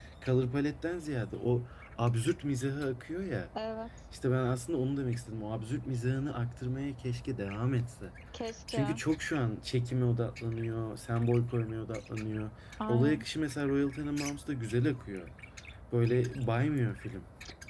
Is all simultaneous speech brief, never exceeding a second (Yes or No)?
Yes